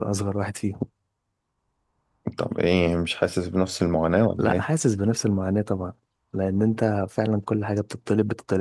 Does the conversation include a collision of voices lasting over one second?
No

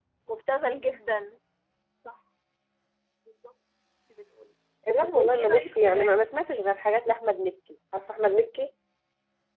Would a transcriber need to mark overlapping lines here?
Yes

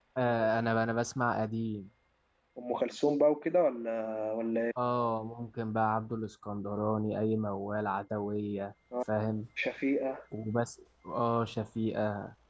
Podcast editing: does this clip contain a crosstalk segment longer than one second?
No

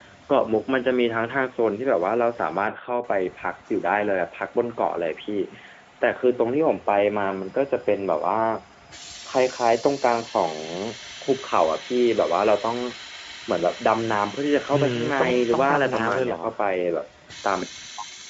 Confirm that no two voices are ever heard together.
No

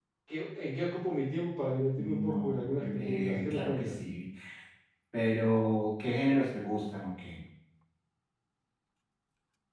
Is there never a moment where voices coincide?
No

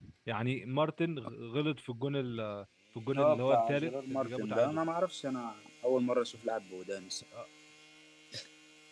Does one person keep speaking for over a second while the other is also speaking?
Yes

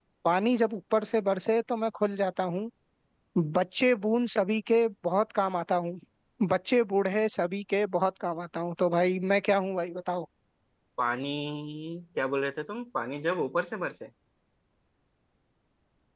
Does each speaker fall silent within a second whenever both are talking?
Yes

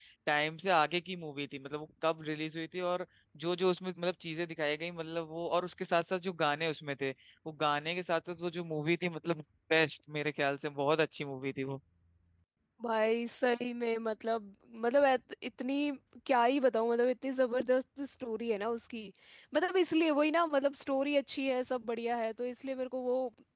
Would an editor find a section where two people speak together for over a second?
No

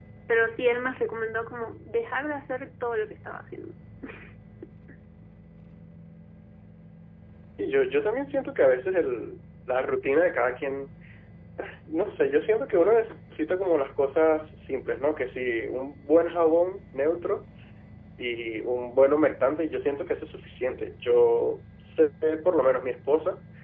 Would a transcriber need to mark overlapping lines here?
No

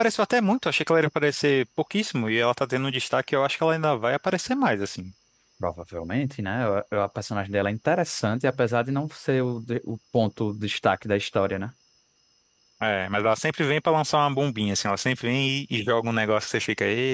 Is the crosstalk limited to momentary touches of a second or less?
Yes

